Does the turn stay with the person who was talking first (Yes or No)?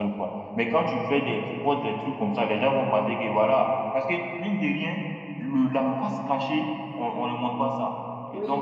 Yes